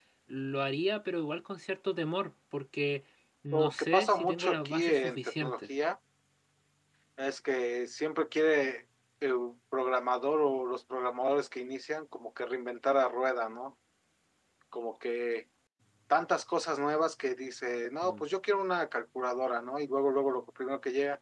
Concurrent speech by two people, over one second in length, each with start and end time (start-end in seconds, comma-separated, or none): 3.5-5.6